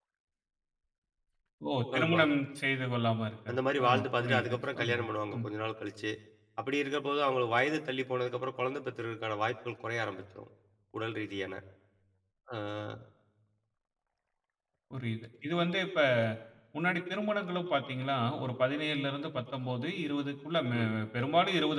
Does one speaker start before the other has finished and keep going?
Yes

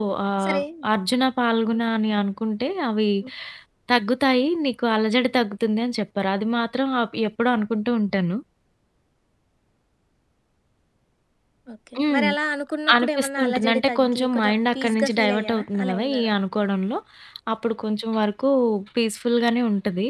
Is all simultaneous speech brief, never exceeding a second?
No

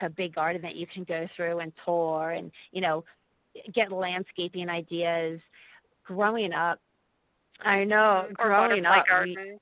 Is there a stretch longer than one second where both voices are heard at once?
Yes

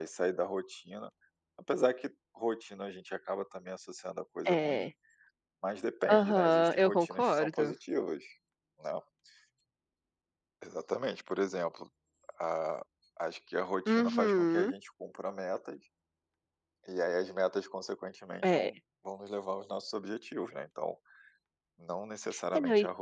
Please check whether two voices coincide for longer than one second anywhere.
Yes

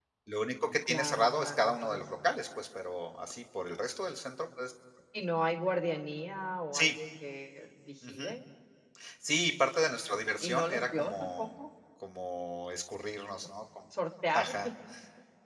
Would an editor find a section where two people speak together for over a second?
Yes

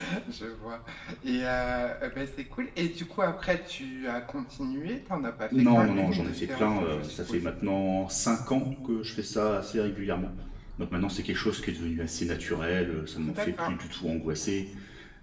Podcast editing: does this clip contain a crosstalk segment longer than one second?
Yes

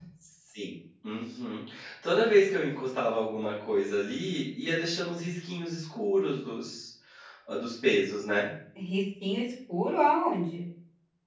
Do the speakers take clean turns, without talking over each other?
Yes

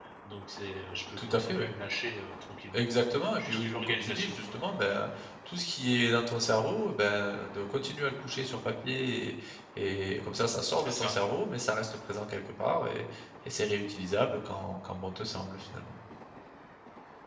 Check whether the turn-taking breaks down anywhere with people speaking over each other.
Yes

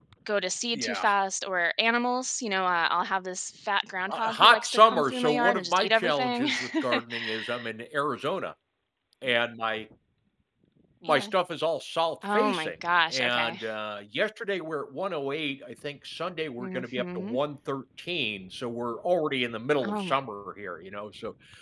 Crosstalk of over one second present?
Yes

